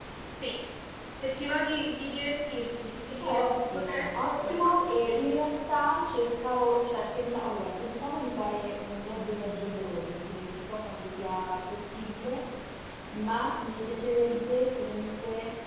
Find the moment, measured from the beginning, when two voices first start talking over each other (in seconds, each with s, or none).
3.2 s